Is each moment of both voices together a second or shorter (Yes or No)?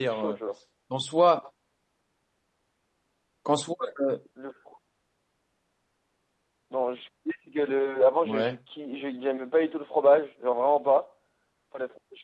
Yes